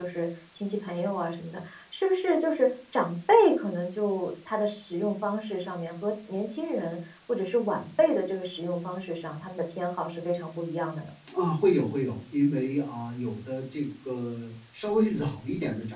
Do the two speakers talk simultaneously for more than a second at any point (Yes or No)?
No